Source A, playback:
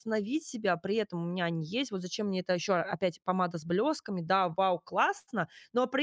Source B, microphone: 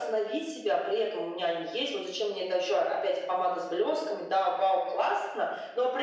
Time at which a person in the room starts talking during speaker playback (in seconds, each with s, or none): none